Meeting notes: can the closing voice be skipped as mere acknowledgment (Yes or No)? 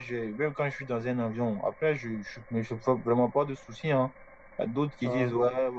Yes